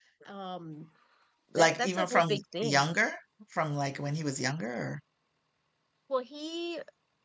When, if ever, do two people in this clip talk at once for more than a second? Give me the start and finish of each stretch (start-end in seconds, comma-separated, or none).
1.6-2.9